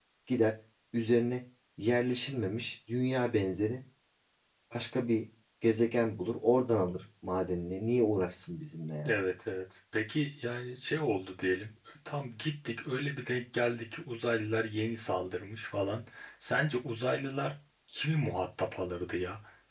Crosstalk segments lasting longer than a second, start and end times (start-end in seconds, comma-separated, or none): none